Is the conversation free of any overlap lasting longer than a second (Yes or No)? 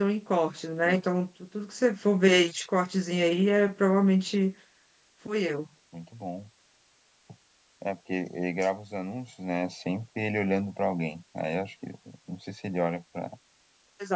Yes